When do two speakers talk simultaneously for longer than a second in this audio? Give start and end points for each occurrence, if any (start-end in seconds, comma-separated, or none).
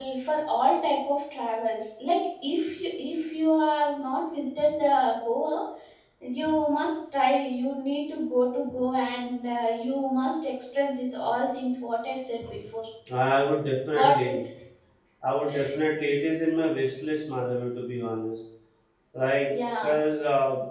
none